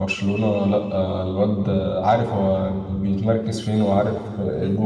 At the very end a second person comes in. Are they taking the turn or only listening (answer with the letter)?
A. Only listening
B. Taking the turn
B